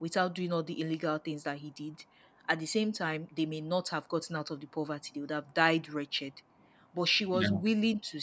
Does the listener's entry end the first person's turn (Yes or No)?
No